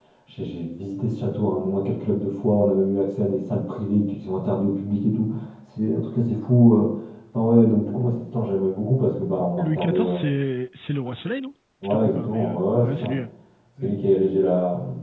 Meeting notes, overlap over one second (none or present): present